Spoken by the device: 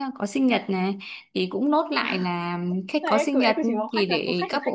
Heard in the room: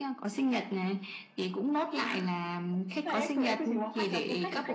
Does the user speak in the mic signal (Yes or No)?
No